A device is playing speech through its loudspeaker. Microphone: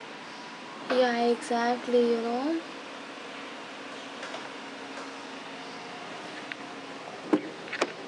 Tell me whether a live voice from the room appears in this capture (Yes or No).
Yes